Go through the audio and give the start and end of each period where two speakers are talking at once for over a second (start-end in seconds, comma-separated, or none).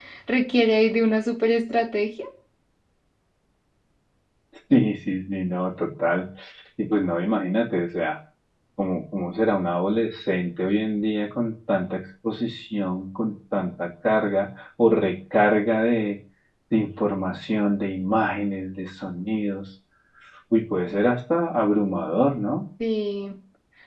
none